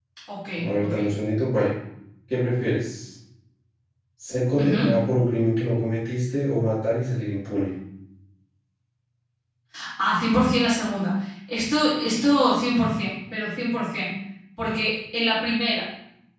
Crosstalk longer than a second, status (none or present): none